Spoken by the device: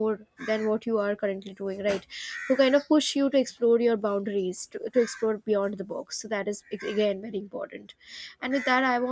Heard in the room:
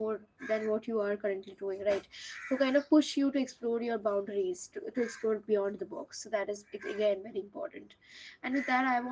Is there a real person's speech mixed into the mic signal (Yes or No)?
No